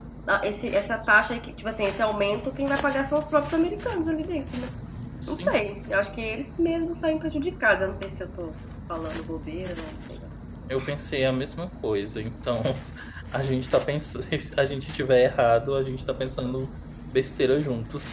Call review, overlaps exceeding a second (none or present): none